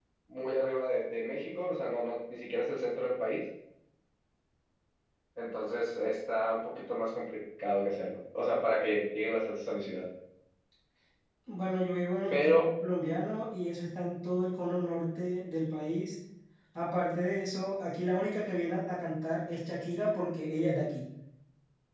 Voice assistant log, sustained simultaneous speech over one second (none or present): none